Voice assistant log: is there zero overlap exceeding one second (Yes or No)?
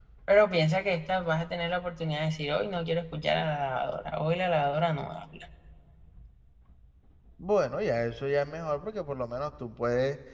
Yes